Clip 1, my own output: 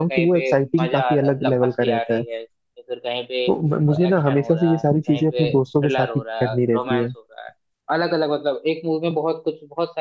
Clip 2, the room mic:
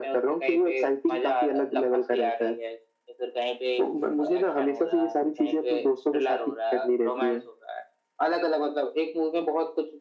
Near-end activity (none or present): none